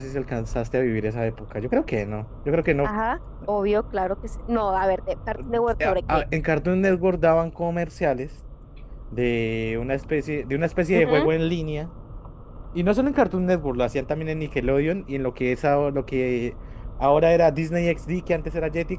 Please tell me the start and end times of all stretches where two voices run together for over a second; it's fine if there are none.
none

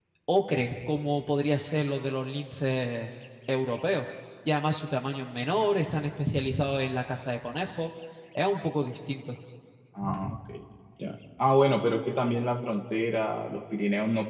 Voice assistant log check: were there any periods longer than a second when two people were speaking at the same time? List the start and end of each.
none

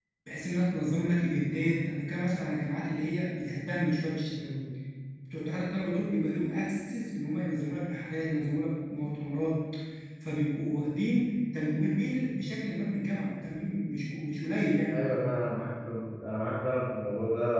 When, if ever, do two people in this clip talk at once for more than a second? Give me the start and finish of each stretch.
none

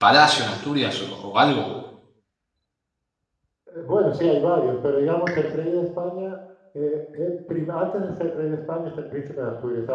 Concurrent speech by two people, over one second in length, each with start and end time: none

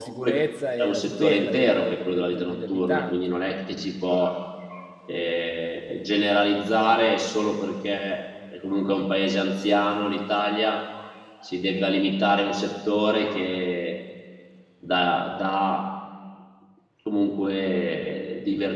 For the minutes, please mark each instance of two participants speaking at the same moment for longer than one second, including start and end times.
0.8-3.4

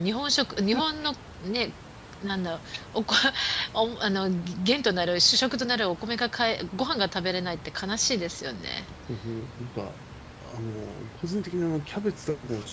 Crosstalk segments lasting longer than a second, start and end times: none

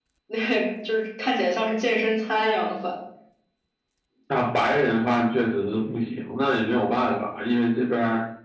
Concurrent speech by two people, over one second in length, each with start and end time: none

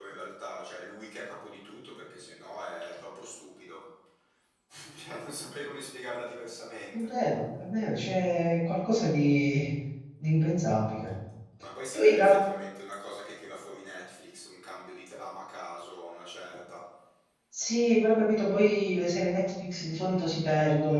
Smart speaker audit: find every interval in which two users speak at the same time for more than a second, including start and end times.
none

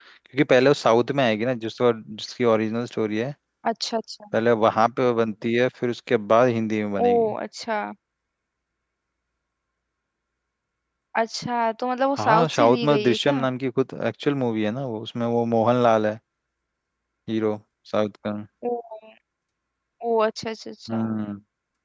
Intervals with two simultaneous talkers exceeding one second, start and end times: 12.2-13.4

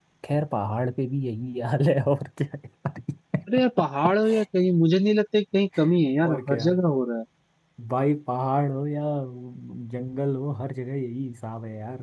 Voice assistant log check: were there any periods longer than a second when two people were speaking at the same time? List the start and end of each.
none

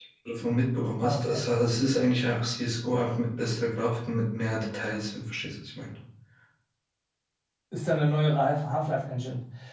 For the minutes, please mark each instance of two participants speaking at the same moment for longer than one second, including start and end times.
none

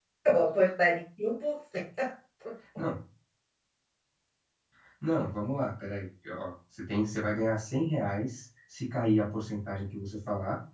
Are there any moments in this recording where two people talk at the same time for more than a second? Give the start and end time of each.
none

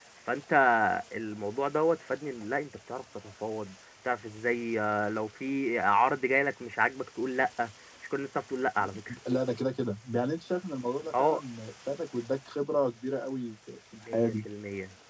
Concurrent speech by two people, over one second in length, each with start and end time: none

